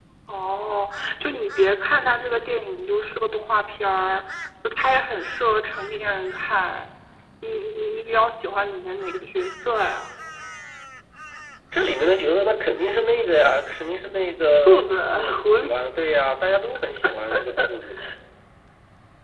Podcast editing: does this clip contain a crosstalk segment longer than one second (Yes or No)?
Yes